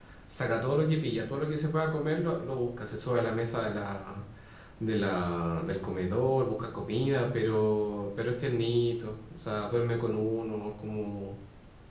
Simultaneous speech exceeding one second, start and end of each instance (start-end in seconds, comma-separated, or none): none